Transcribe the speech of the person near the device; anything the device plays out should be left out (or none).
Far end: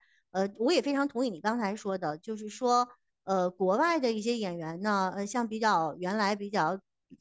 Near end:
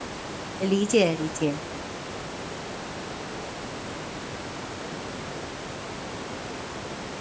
理解理解，